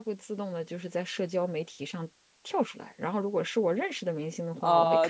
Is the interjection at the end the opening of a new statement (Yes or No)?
Yes